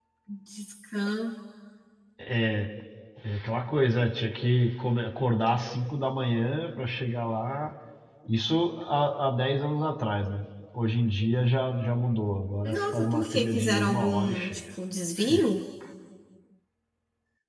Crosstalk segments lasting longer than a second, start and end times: 12.6-14.6

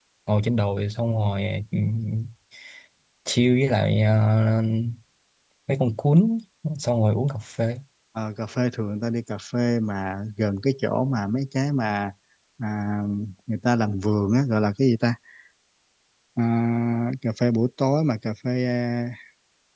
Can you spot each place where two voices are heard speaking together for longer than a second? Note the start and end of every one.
none

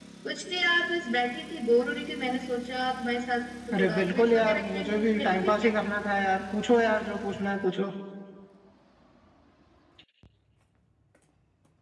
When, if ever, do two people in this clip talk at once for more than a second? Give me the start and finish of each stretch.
3.7-5.7

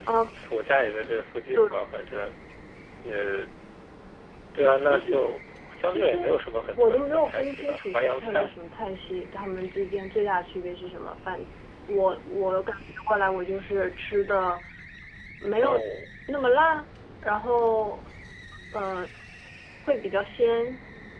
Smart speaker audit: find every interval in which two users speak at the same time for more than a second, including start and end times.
6.8-8.5

